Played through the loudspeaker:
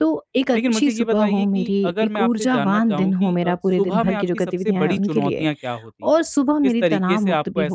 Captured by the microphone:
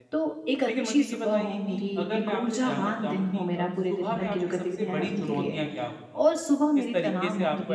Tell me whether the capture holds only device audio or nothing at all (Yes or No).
Yes